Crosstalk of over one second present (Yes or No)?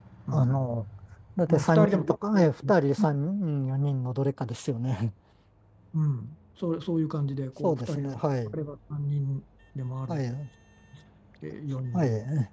Yes